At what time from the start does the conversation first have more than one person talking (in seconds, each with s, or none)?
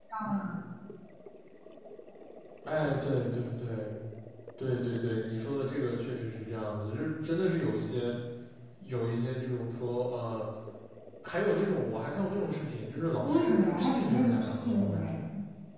13.2 s